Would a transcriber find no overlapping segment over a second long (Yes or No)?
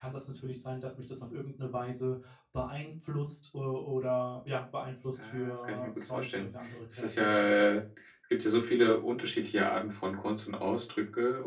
No